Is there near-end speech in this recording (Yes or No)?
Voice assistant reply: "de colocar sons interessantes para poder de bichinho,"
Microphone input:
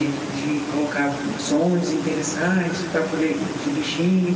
No